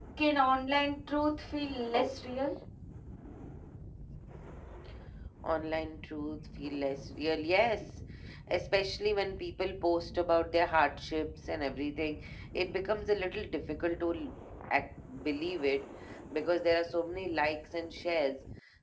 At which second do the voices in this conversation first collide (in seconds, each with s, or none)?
none